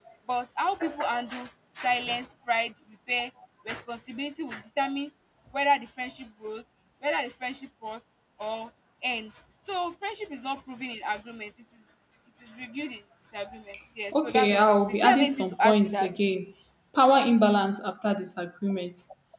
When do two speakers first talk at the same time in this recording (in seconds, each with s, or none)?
14.1 s